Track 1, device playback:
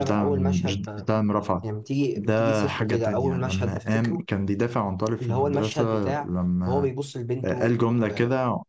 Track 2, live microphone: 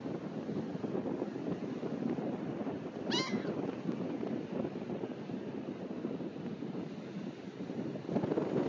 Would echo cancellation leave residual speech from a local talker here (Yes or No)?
No